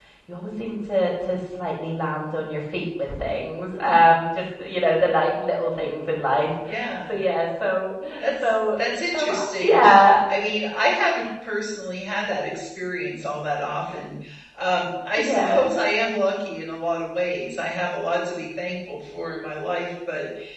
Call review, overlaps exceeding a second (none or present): present